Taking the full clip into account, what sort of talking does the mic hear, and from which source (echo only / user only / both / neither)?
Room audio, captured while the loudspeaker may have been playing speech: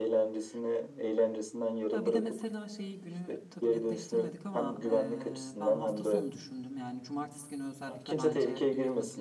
both